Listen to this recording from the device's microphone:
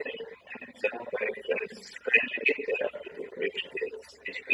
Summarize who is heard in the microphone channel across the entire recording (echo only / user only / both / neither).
echo only